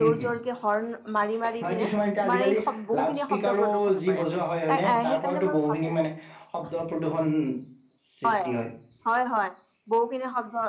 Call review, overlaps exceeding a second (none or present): present